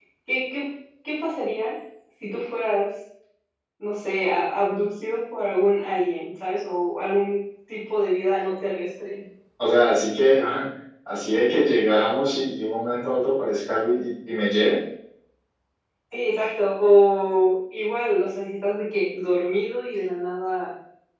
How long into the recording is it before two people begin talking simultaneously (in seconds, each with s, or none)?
none